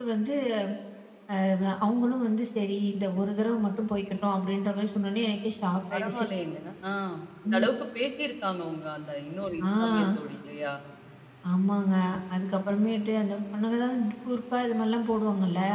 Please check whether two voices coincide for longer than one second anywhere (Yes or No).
No